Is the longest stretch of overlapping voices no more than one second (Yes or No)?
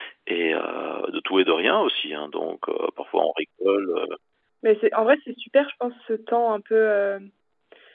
Yes